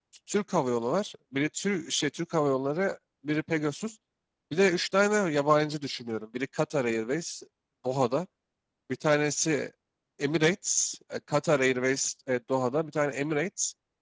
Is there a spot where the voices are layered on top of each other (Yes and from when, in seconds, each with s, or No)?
No